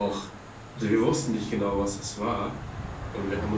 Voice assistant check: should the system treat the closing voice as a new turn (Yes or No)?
No